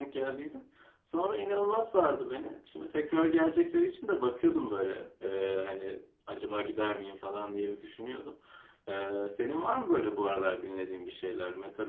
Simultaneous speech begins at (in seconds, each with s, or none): none